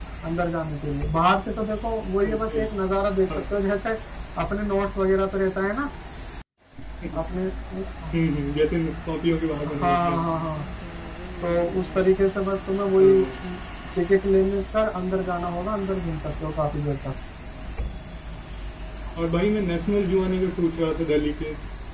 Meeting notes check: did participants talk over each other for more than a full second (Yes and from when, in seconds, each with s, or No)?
No